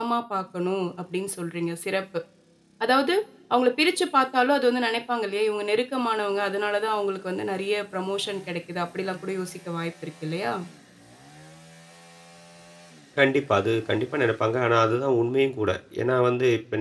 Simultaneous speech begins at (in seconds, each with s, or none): none